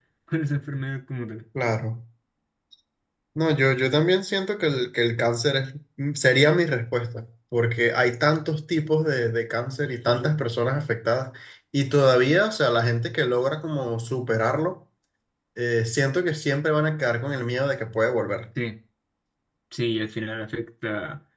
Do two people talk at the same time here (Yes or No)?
No